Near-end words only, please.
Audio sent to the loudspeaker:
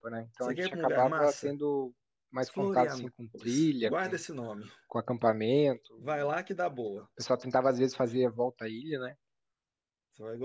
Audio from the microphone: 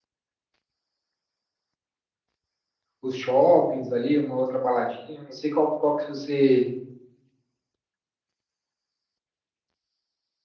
Os shoppings ali, uma outra baladinha. Não sei qual, qual que você

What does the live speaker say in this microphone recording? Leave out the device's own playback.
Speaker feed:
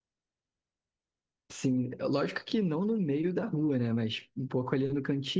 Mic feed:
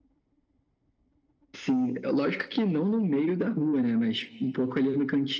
none

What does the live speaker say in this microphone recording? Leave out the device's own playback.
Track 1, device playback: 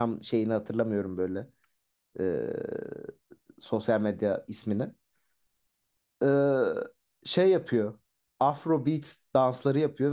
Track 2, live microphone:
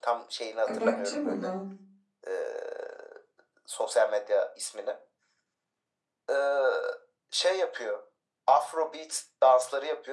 e, bakacağım ona.

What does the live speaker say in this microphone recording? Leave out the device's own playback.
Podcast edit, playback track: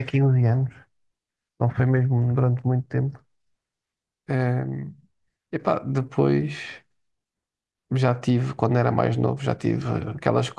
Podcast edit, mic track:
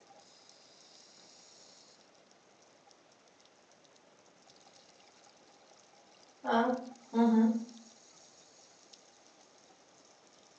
Ah, uhum.

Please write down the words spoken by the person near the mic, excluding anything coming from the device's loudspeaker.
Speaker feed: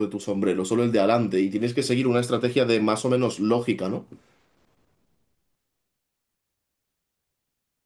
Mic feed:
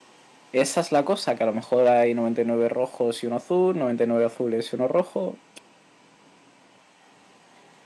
Esa es la cosa, que a lo mejor hay 99 rojos y uno azul, 99 azules y uno rojo.

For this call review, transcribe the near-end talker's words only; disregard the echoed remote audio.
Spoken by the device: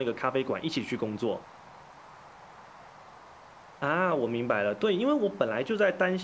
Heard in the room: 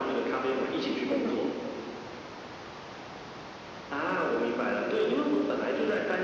嗯

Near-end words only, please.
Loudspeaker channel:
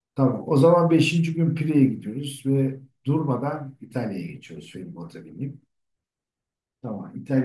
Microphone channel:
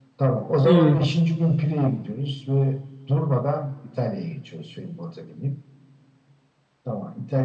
Hmm,

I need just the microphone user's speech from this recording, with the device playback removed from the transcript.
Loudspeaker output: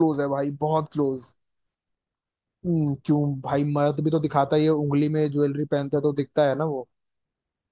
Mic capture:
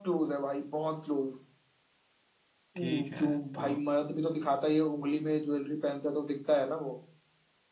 ठीक है तो

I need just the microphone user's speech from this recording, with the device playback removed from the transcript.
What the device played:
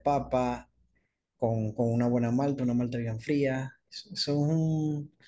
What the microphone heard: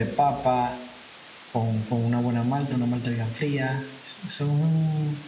none

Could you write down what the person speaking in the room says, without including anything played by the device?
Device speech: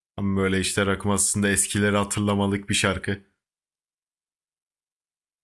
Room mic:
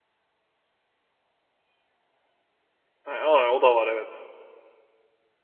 aa, o da var evet.

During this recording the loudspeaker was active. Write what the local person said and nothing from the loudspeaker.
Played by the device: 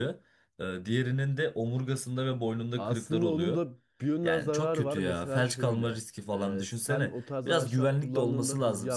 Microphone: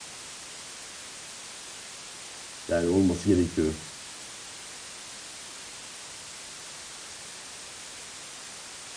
Yani olması gerekiyor.

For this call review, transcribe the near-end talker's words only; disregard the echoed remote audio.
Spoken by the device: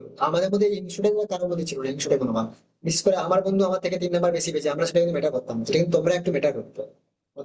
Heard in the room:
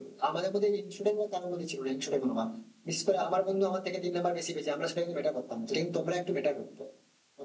none

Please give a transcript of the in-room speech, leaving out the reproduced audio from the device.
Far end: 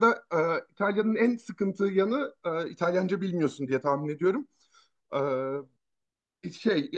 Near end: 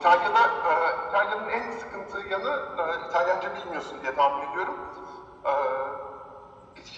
none

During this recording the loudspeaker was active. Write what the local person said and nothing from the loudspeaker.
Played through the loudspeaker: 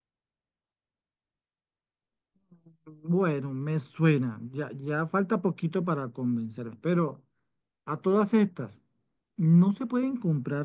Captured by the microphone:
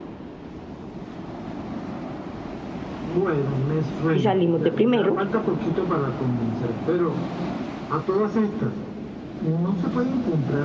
y salimos de primeros.

